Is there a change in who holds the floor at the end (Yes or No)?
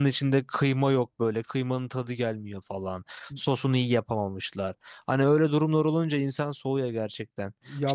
No